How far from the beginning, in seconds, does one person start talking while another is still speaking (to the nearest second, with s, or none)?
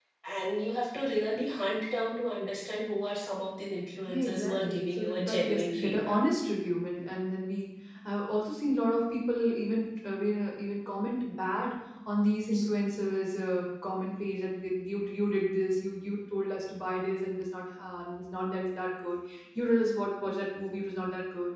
4 s